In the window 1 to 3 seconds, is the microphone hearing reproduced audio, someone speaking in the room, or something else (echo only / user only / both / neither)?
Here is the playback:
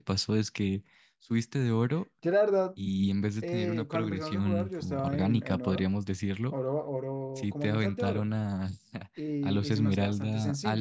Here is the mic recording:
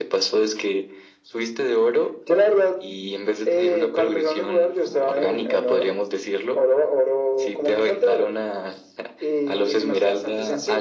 echo only